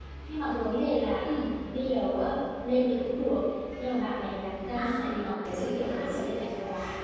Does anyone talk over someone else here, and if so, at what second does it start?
4.7 s

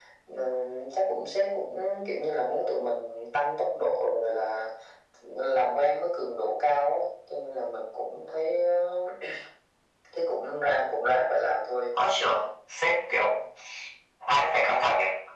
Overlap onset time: none

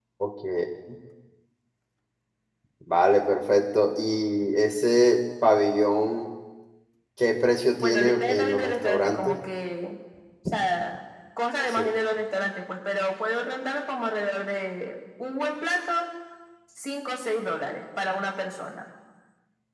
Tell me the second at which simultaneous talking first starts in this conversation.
7.8 s

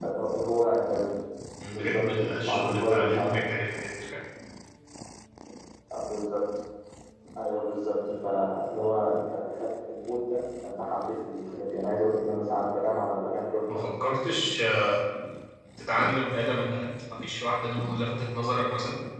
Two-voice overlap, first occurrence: 1.7 s

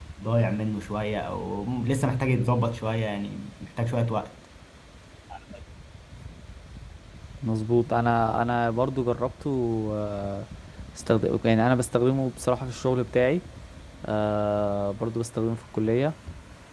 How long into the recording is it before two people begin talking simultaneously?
none

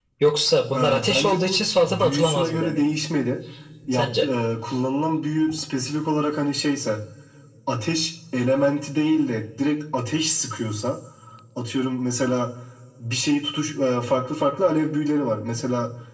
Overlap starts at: 0.8 s

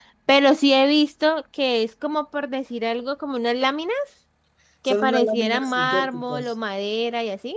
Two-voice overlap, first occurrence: 4.8 s

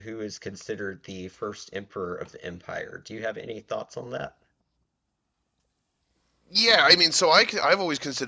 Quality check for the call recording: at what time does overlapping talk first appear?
none

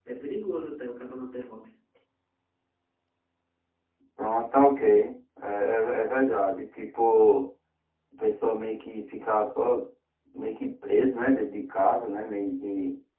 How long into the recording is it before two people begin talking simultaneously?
none

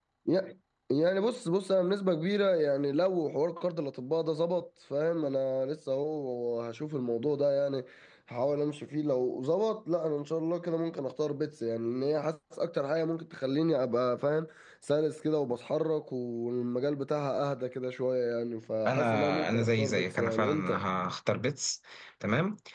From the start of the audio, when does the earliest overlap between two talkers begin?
18.8 s

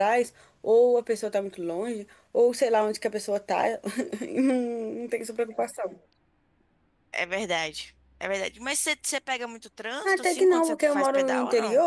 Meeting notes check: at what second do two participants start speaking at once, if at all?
10.0 s

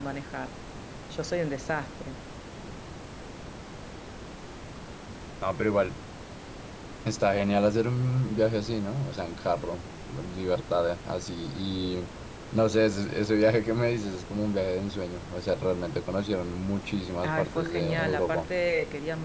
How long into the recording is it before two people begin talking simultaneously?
17.2 s

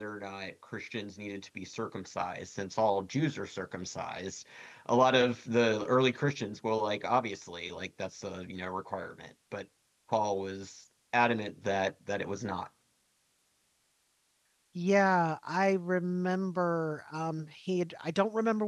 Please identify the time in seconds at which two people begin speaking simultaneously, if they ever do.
none

